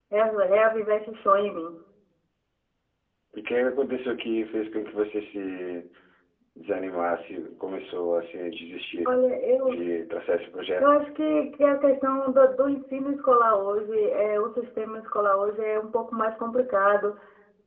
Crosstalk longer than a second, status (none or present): none